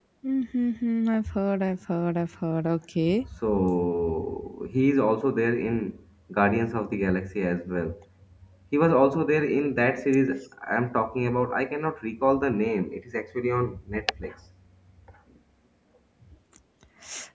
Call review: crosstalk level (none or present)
none